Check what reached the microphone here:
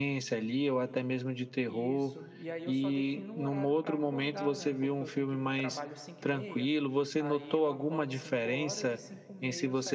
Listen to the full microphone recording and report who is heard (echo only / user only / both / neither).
both